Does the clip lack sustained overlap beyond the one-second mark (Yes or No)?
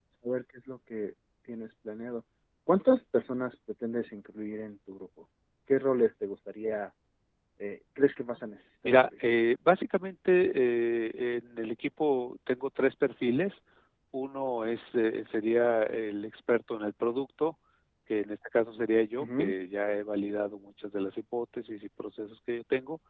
Yes